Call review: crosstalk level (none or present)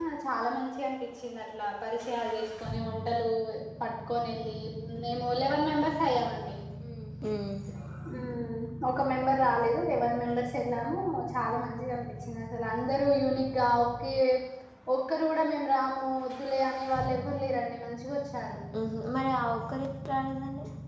none